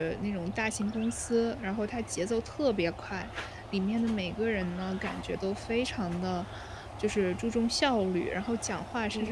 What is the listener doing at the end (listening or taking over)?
listening